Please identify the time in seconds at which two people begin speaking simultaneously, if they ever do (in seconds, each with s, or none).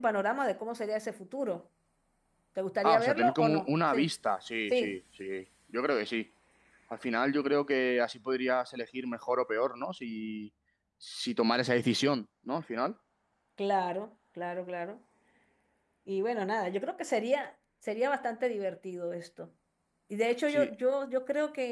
2.8 s